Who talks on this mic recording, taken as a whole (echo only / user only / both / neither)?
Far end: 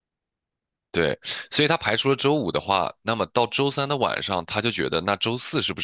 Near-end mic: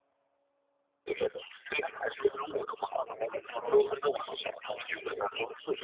echo only